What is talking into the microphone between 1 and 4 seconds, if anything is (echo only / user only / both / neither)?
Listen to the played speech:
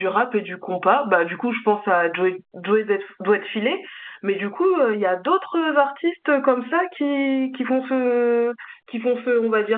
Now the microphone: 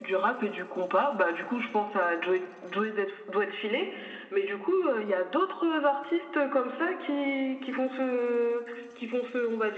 echo only